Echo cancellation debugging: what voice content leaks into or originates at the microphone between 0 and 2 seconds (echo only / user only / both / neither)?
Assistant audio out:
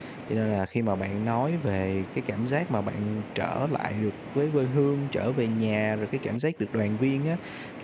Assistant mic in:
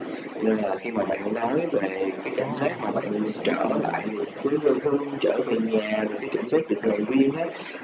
echo only